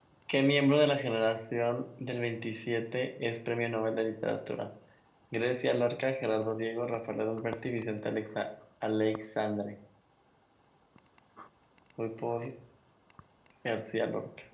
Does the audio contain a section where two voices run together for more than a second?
No

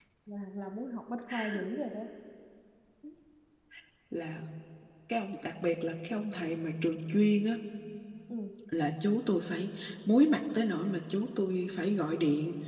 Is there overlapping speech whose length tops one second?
No

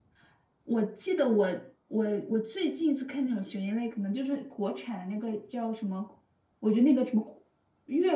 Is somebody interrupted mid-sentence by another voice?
No

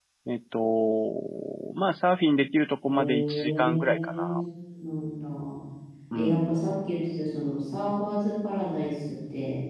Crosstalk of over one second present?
Yes, from 2.8 s

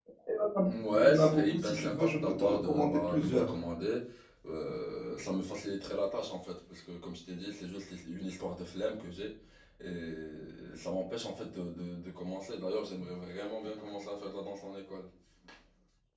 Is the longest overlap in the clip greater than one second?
Yes, from 0.7 s

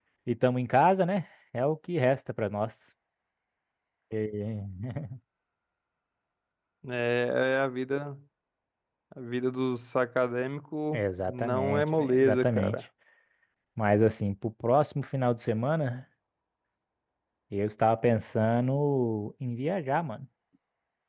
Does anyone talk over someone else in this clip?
Yes, from 10.9 s

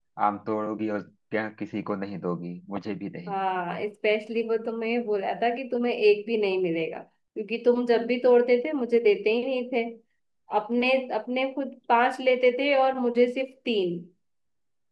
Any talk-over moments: No

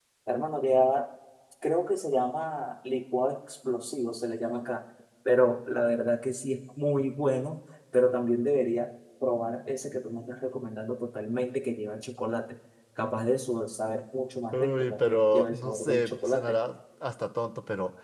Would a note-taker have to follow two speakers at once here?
Yes, from 14.5 s

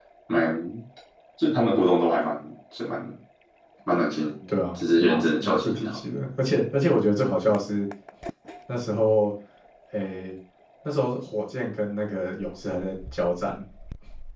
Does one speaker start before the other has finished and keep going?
Yes, from 4.5 s

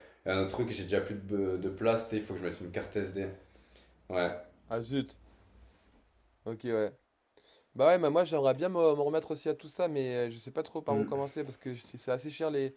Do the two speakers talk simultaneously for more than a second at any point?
No

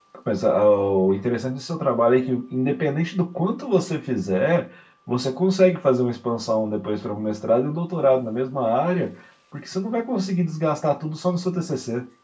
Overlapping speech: No

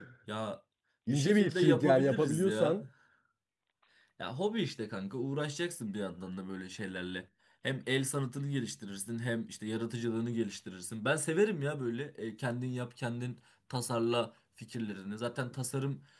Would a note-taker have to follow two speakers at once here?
Yes, from 1.1 s

